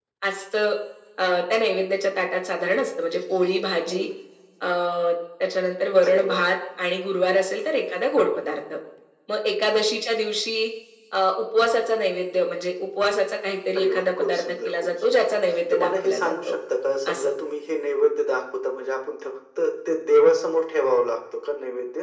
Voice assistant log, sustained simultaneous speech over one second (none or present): present